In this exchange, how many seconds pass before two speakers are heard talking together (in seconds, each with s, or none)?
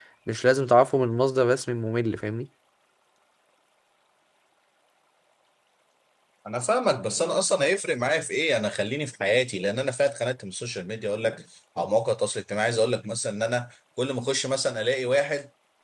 none